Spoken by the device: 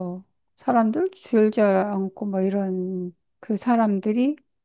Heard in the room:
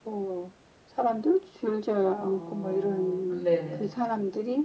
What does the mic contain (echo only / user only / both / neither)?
both